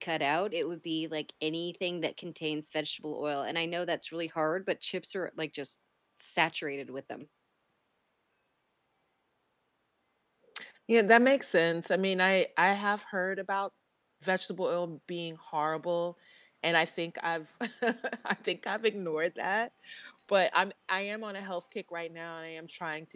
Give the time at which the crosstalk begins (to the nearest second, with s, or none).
none